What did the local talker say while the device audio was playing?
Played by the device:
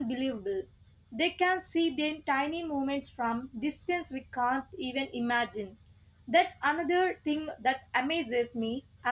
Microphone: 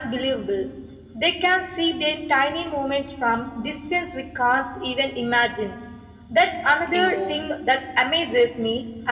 emu

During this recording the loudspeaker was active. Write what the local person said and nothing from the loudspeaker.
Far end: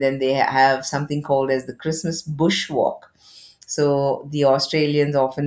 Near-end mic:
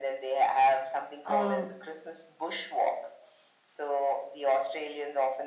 uh,

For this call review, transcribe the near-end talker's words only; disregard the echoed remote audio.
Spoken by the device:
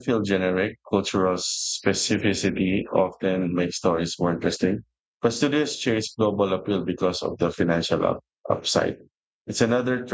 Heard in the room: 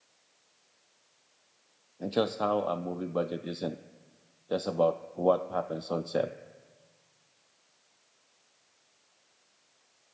And just how a movie budget isn't just about what happens on set.

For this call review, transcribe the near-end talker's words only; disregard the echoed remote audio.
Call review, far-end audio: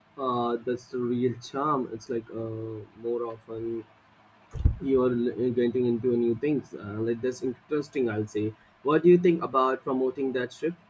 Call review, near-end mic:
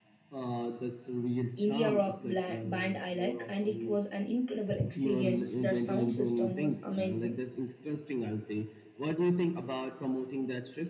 India rock bla- band I like, and it was an incredible experience. Their sound system was amazing.

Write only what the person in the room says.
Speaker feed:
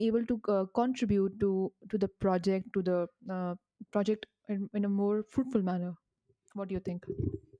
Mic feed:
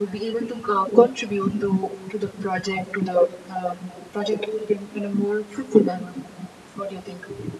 none

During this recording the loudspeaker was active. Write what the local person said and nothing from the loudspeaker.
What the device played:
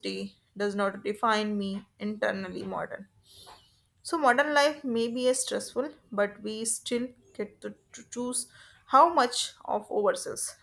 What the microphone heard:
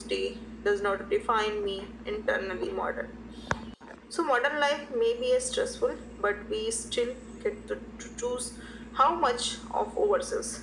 none

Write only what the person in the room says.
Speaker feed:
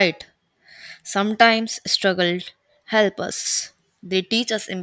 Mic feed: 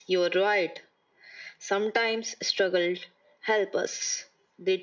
none

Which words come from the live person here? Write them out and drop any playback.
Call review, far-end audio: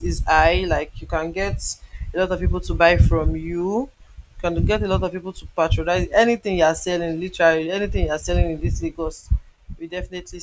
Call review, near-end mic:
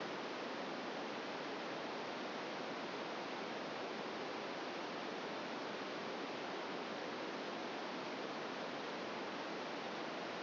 none

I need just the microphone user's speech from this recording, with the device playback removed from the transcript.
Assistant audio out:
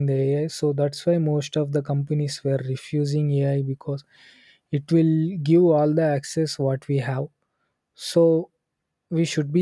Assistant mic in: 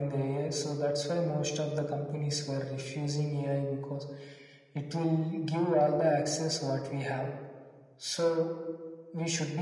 none

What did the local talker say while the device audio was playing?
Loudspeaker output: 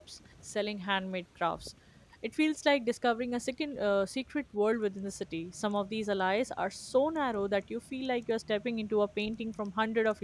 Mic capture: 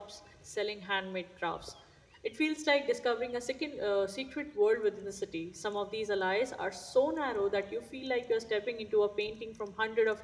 none

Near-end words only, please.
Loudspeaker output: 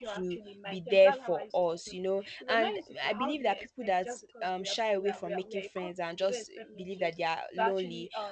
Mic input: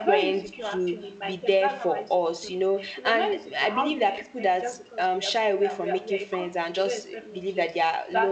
none

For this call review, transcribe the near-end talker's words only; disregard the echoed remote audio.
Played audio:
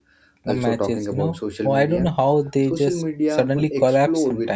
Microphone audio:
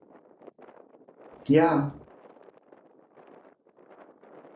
Yeah,

